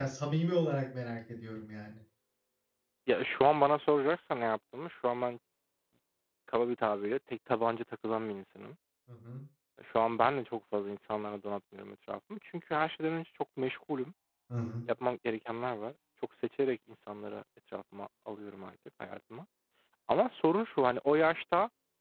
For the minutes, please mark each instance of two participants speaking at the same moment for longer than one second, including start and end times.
none

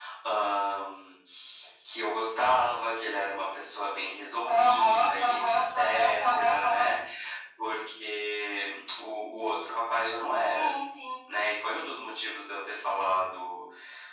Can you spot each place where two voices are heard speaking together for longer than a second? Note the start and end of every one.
4.5-6.9

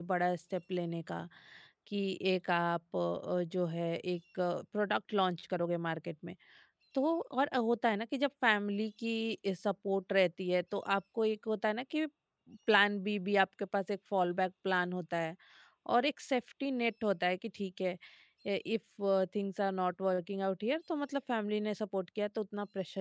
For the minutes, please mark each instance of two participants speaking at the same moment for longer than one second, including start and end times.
none

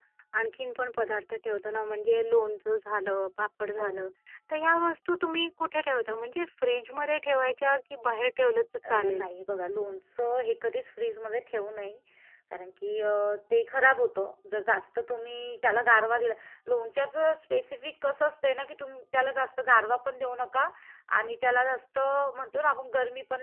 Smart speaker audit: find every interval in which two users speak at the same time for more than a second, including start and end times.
none

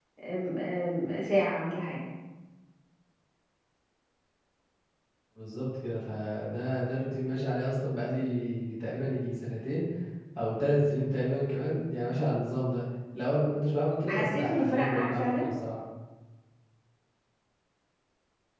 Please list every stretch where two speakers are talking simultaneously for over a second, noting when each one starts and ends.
14.1-15.4

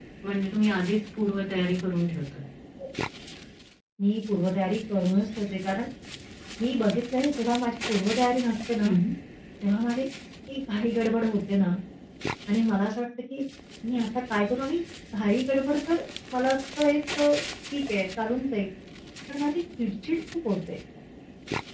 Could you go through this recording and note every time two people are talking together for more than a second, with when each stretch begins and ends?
none

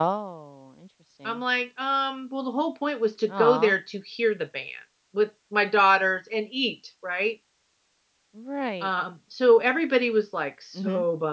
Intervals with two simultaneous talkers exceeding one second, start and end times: none

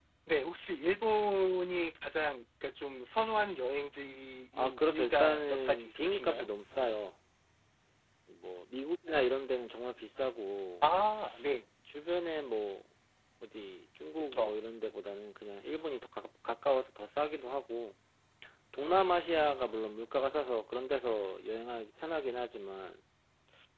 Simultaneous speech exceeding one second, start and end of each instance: 4.6-6.5

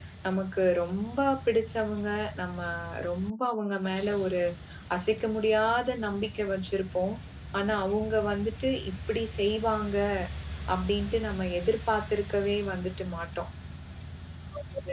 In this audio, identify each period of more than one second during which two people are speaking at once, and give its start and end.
none

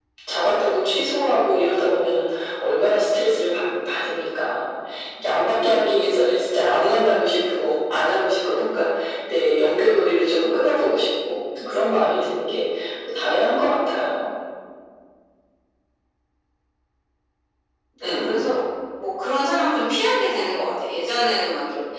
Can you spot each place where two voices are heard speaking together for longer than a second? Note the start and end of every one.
none

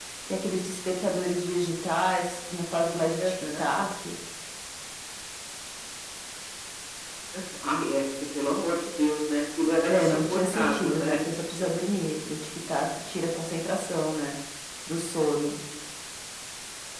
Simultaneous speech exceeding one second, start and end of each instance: 9.9-11.2

